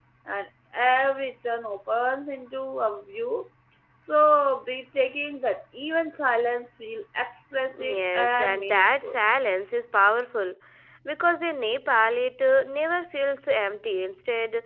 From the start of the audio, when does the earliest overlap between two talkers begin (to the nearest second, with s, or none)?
8 s